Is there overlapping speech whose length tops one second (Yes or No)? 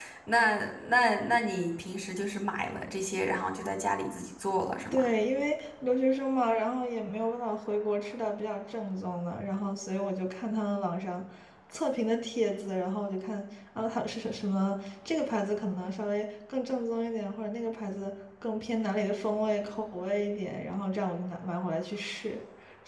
No